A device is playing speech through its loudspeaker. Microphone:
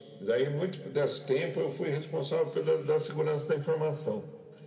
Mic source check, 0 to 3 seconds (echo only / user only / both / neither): echo only